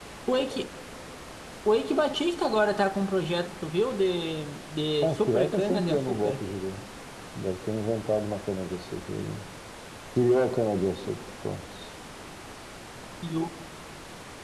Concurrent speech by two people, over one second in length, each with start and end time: 5.0-6.4

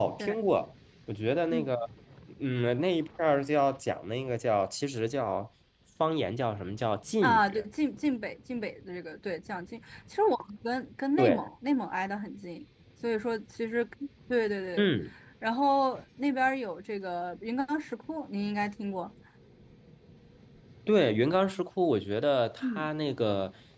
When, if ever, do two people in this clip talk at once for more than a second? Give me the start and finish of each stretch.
none

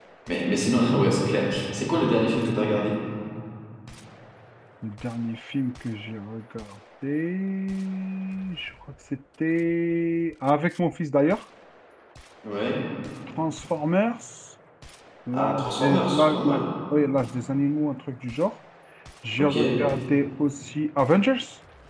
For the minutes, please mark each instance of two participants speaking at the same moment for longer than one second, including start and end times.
15.3-16.6

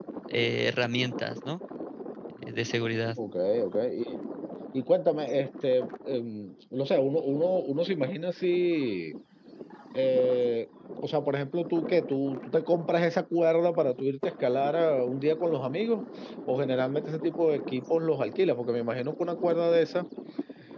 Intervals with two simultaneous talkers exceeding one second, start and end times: none

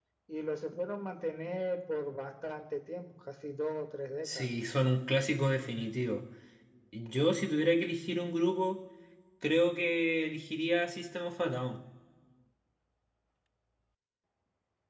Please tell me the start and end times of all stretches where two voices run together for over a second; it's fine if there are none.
none

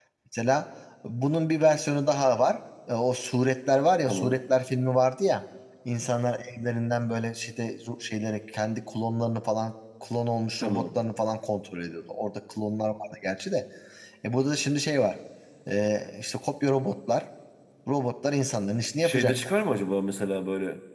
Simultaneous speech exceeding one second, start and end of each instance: none

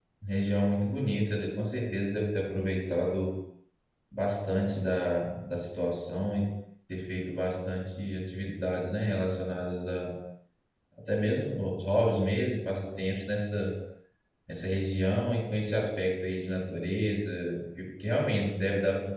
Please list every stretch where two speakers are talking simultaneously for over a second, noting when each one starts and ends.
none

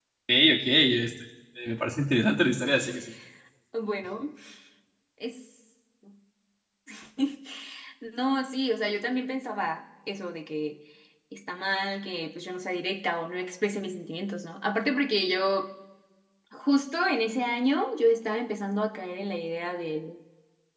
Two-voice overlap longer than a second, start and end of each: none

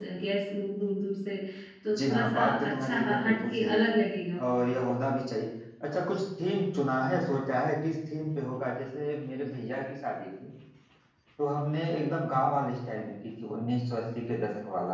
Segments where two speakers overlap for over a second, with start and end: 2.0-3.9

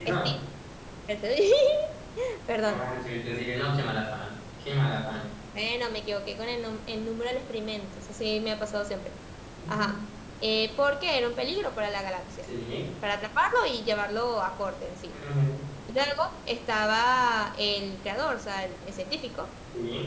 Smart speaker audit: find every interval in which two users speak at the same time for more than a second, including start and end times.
none

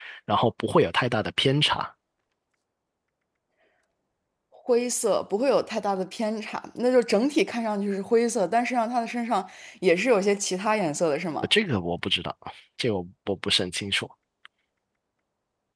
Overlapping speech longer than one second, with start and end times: none

